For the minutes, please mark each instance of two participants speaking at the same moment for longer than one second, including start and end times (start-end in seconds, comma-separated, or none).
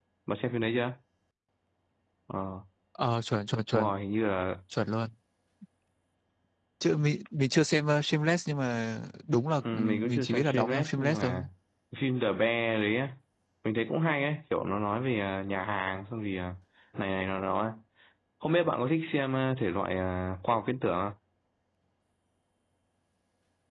9.7-11.3